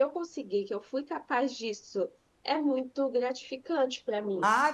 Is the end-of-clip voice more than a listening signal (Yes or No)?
Yes